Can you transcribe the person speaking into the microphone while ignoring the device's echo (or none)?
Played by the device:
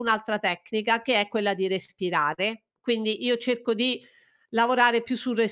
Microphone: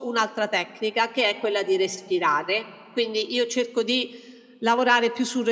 none